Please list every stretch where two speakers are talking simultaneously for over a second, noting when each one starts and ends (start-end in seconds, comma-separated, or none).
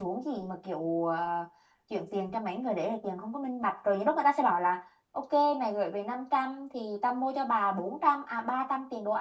none